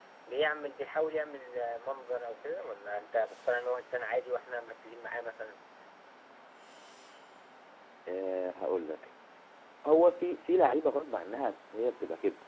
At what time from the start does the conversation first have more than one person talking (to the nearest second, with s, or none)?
none